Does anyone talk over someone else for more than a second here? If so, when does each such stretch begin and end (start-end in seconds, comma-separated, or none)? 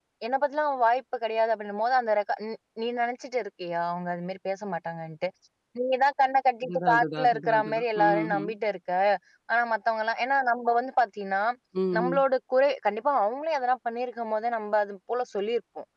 6.6-8.5